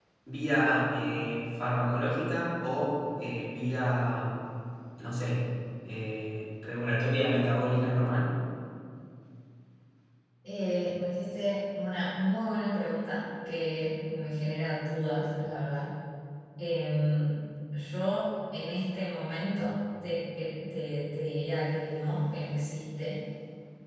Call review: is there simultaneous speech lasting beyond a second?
No

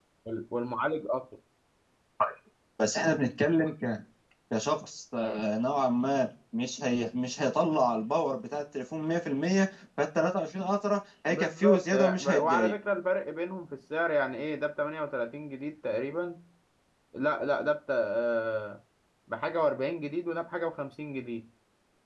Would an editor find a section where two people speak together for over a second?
Yes, from 11.3 s

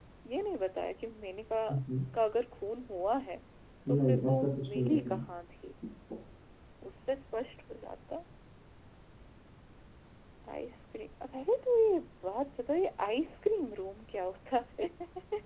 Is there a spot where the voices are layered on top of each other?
Yes, from 4.0 s

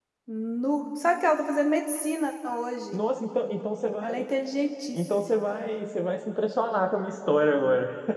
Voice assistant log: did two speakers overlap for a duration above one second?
No

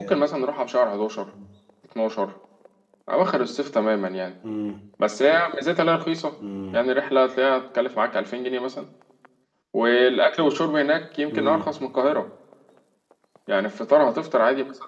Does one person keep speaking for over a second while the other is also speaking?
No

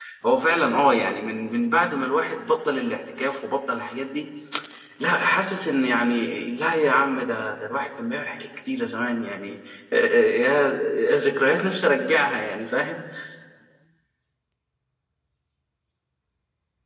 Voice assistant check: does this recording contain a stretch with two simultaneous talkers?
No

